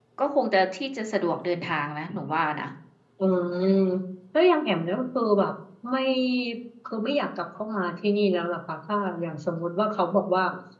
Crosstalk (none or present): none